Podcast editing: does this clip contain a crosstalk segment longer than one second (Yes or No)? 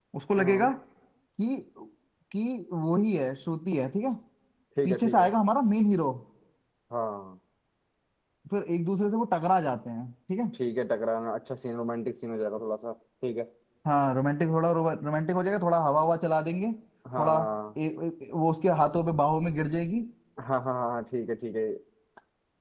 No